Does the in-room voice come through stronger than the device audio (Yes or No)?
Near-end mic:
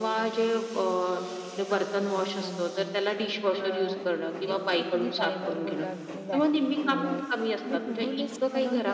No